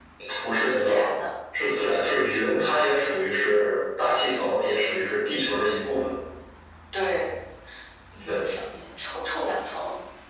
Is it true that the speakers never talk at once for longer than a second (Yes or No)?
Yes